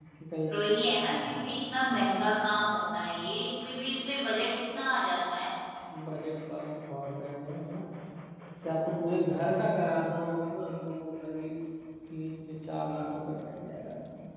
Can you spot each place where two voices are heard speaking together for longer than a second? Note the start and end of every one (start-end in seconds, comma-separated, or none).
none